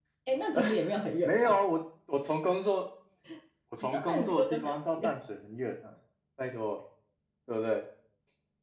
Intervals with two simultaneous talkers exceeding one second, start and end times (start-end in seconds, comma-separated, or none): 3.8-5.2